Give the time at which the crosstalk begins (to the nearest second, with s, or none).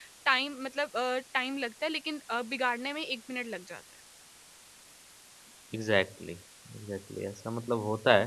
none